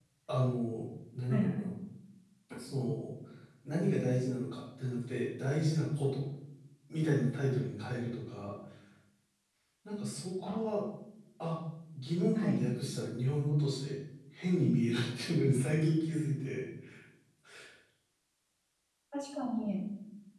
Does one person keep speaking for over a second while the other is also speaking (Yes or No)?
No